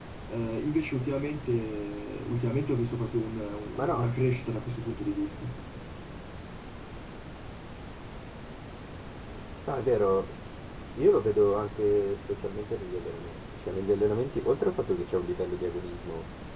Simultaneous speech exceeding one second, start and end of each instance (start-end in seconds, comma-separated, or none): none